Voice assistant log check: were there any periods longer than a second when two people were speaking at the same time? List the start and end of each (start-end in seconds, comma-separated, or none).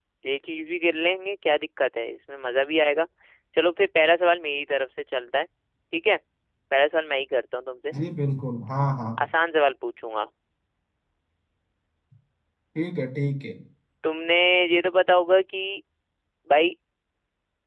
none